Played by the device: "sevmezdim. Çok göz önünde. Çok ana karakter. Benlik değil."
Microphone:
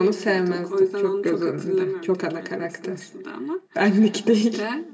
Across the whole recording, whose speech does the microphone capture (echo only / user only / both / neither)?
both